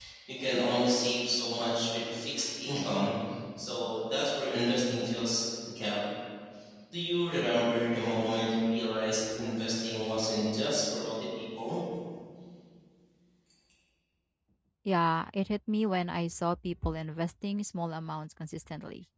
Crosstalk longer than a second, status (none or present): none